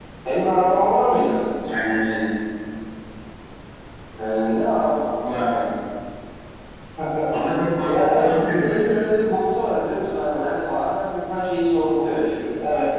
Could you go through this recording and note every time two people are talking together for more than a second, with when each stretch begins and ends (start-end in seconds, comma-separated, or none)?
7.8-9.2